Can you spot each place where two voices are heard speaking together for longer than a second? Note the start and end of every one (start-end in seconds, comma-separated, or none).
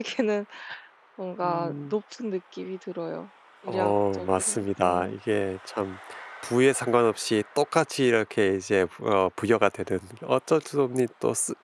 3.7-5.1